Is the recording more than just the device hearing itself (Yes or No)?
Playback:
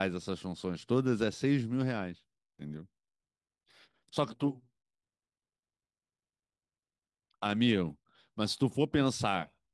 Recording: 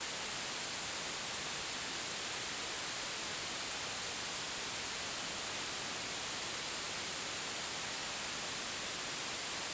No